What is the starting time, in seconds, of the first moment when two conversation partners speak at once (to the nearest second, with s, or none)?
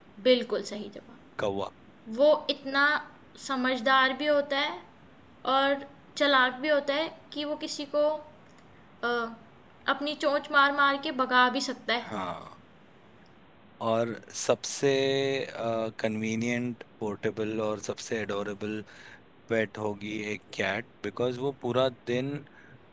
none